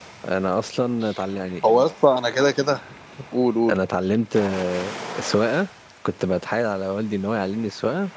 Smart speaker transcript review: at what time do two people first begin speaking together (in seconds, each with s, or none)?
none